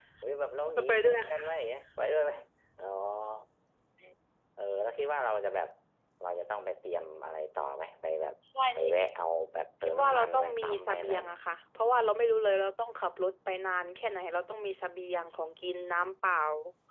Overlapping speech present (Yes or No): Yes